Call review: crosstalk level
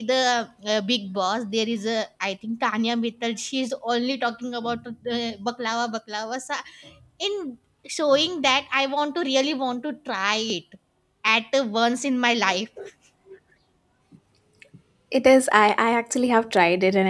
none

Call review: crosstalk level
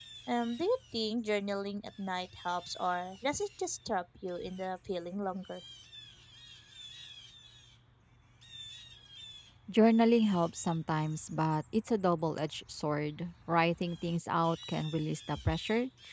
none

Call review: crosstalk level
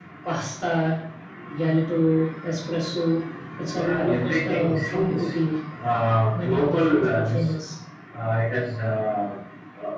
present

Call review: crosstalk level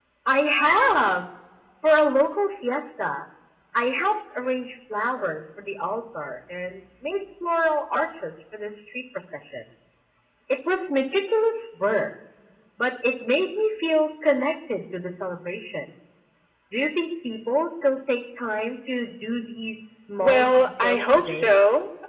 present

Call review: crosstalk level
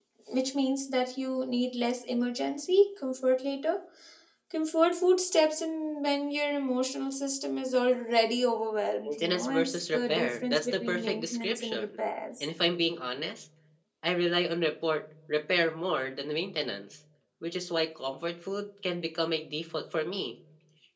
present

